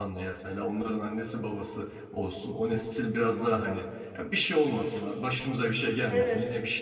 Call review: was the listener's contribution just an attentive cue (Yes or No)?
Yes